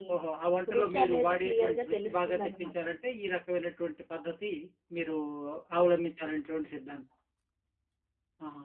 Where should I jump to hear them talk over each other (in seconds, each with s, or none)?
0.8 s